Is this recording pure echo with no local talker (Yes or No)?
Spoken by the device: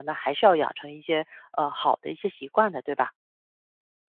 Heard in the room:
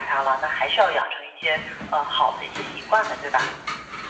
Yes